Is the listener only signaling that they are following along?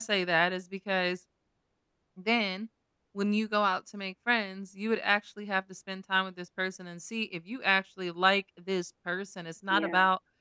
Yes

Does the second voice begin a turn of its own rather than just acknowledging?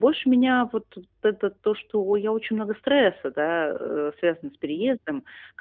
No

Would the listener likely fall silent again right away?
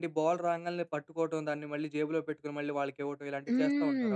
No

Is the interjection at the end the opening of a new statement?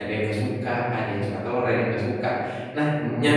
No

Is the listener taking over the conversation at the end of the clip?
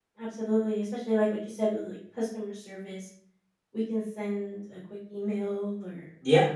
No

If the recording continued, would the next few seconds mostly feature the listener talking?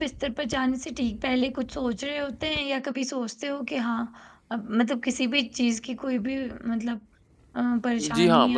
Yes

